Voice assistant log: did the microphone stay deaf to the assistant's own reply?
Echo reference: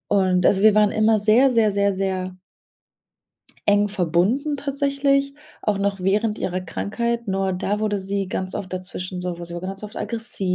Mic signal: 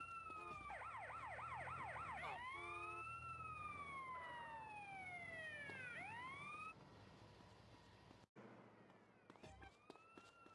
Yes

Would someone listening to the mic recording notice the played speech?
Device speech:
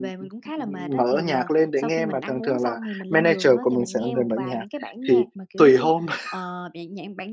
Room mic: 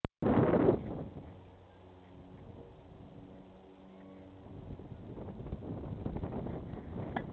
No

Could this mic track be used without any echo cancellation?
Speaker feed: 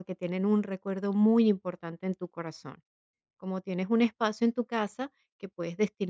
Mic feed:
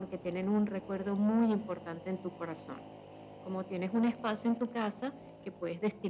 No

